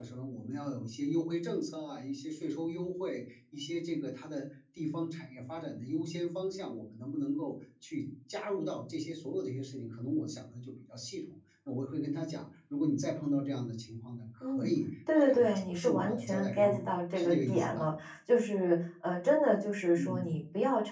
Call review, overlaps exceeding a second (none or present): present